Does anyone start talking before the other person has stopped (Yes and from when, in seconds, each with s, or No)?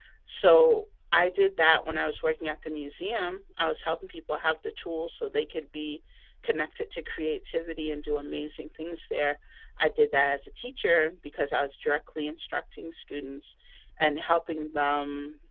No